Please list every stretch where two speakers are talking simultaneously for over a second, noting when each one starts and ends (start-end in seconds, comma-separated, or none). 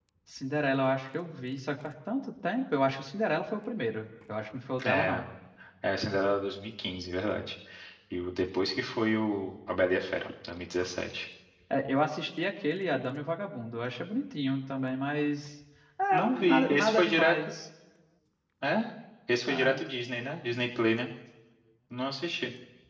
16.1-17.4